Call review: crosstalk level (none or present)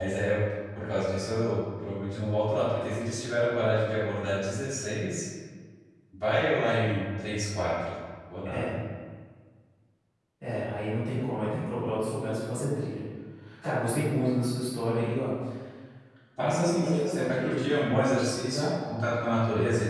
present